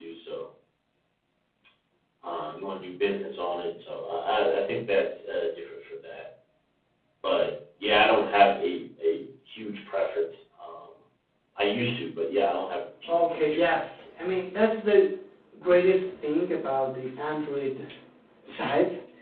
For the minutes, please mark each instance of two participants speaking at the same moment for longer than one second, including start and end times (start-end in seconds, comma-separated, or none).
13.0-14.4